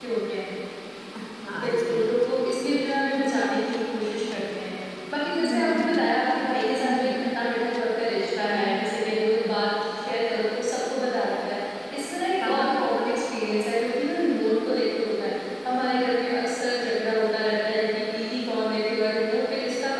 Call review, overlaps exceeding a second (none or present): none